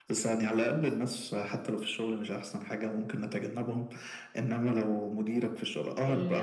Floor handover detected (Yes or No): No